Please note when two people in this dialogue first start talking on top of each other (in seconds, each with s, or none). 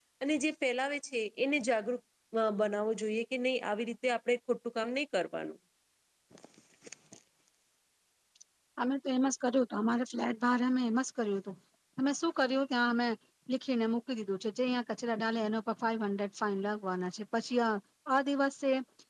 none